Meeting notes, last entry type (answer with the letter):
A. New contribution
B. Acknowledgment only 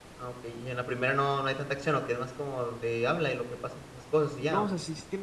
A